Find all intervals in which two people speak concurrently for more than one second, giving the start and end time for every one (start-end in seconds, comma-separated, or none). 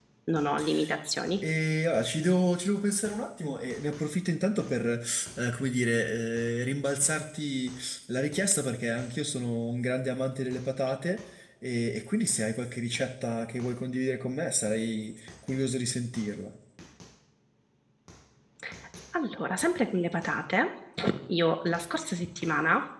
none